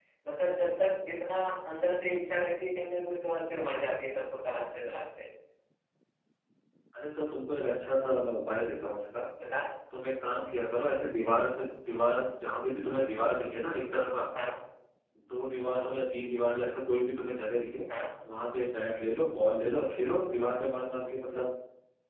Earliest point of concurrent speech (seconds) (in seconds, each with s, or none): none